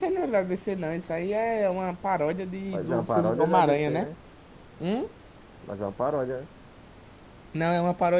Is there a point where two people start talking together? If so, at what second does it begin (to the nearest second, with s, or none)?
3 s